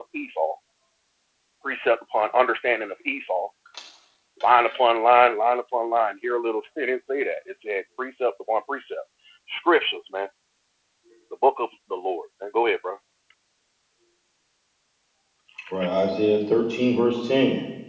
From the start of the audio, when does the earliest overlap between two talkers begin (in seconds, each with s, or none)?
none